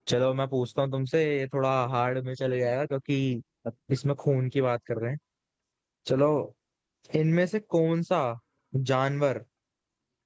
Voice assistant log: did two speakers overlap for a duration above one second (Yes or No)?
No